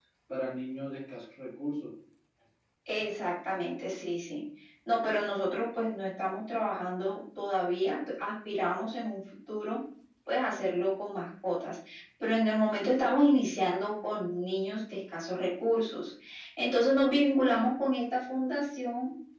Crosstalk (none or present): none